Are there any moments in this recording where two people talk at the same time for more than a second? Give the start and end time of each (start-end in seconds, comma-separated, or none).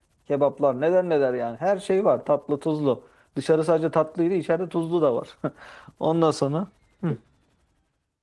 none